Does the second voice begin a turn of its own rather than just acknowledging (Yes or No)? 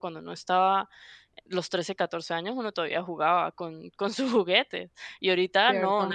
Yes